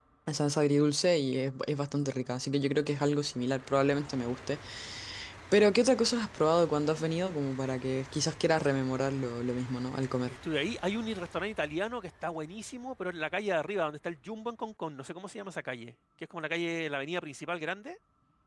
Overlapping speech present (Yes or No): No